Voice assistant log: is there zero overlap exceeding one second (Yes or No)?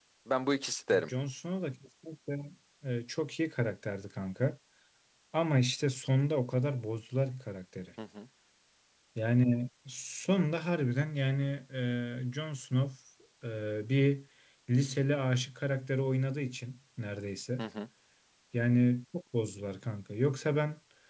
Yes